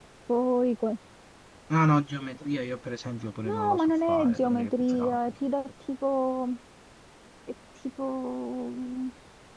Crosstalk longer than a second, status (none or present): present